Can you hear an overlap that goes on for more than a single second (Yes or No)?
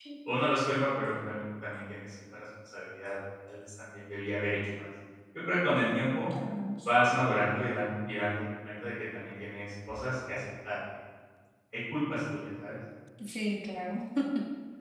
No